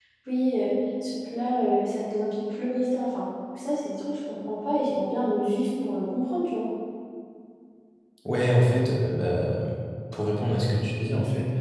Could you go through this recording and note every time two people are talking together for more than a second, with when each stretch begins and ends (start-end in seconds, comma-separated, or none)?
none